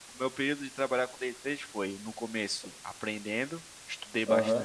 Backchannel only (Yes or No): Yes